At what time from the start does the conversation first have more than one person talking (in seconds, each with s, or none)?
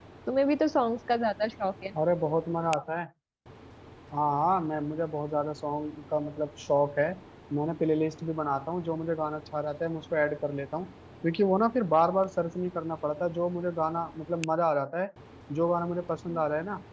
none